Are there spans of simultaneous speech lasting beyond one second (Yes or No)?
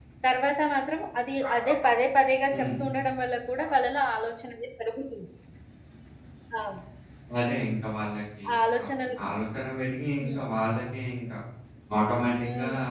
No